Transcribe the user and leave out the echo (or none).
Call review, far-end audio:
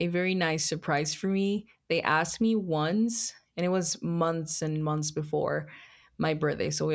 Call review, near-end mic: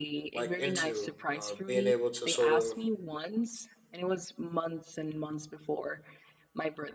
like into. Uh, being able to sort of